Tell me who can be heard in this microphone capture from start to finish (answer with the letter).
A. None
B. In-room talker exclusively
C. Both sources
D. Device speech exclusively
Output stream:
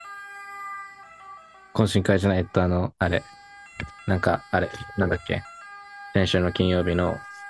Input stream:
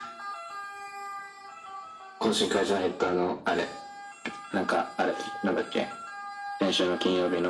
D